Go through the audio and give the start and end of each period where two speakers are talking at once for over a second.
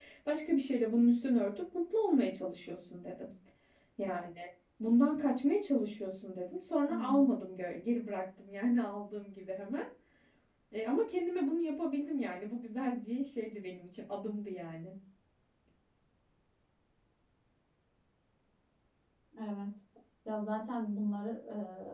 none

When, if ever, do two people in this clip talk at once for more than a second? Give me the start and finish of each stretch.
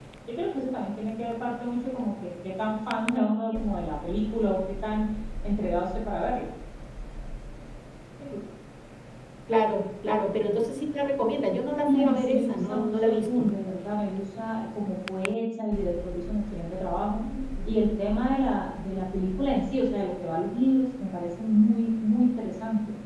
11.8-13.5

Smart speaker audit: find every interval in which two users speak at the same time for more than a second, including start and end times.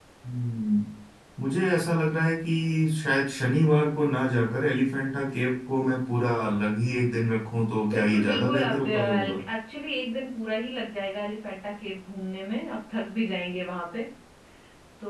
7.9-9.4

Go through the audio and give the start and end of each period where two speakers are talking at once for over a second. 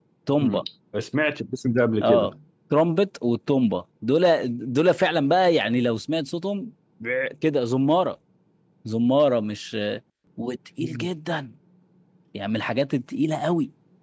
none

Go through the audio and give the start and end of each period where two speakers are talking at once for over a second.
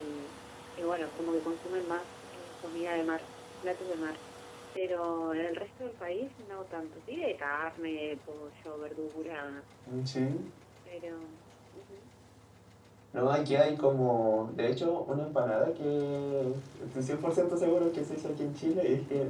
none

